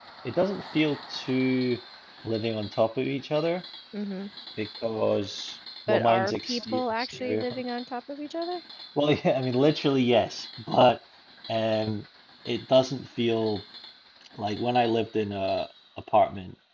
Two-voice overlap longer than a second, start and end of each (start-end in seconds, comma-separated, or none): 5.9-7.5